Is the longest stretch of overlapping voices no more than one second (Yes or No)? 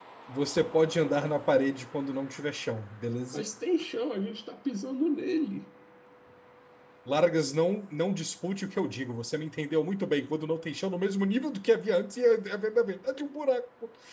Yes